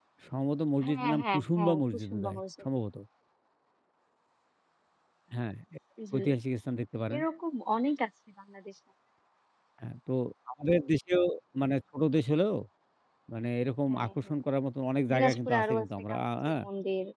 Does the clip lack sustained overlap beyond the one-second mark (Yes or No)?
No